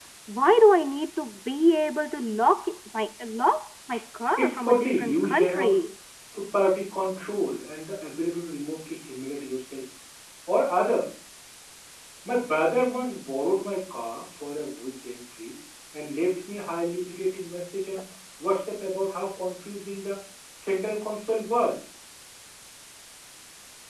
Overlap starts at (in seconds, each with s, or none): 4.4 s